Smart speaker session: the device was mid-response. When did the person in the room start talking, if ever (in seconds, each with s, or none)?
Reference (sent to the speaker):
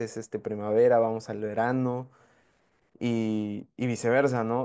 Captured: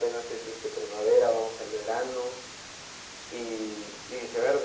none